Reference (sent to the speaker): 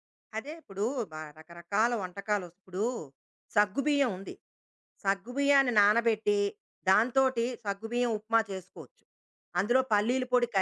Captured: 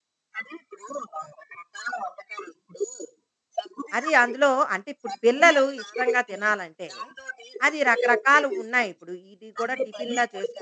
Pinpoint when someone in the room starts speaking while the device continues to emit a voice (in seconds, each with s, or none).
4.0 s